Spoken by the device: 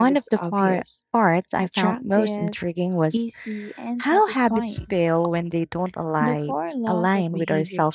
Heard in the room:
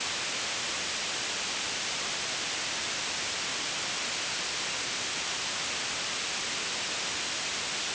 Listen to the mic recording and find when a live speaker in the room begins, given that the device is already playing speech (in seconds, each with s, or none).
none